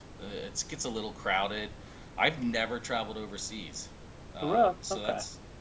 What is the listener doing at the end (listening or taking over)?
listening